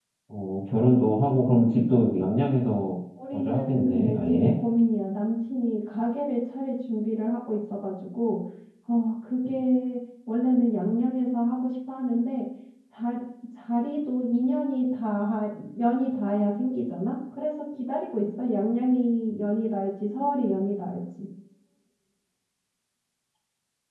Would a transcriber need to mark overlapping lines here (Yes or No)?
Yes